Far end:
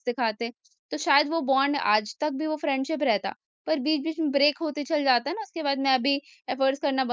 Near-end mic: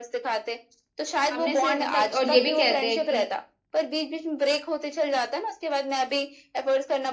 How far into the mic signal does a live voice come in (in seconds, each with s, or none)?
1.3 s